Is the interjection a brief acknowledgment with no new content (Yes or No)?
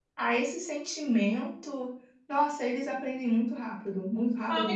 No